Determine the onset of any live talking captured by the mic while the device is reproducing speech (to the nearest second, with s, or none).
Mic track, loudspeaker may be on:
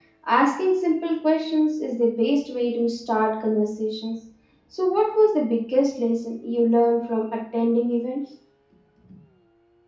none